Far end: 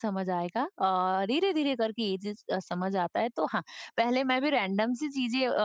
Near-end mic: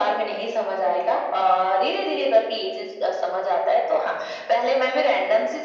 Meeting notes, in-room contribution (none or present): none